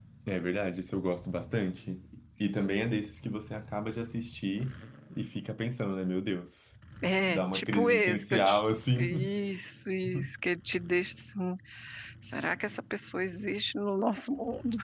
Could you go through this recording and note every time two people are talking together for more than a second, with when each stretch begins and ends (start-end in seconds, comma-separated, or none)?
7.2-8.6